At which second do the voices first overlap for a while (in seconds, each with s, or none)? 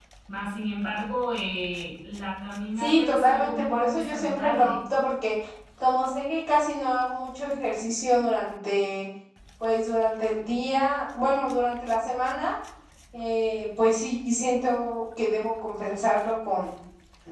2.8 s